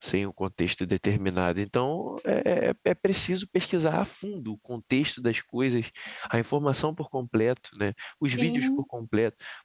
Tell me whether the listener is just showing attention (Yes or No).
Yes